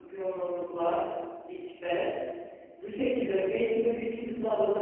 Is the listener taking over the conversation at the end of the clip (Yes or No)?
No